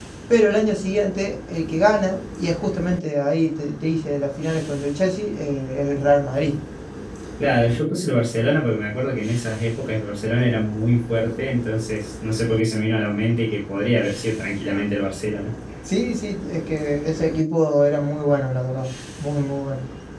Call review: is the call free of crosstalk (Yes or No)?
Yes